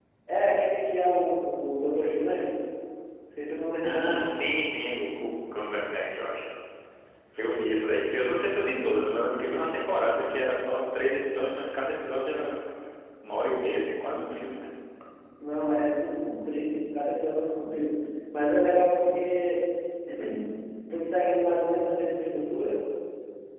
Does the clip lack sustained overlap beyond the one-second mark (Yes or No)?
Yes